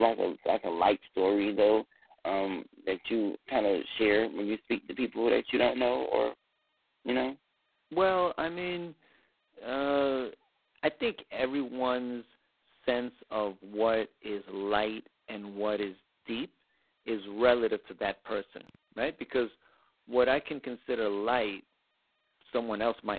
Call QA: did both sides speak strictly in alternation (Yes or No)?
Yes